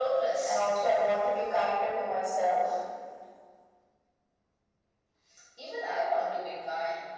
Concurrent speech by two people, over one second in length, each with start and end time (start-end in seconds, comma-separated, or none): none